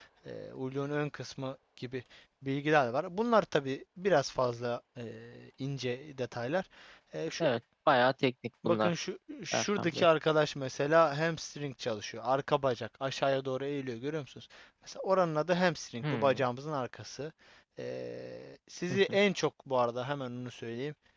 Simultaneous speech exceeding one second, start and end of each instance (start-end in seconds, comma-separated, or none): none